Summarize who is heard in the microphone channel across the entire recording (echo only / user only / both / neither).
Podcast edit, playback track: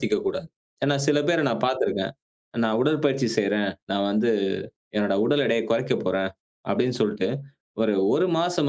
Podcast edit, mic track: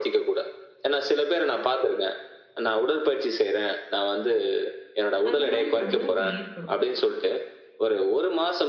both